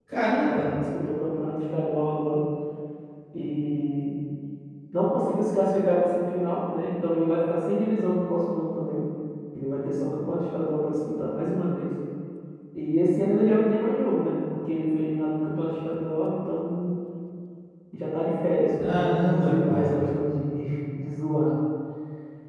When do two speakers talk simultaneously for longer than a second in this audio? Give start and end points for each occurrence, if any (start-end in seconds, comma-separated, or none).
18.8-20.0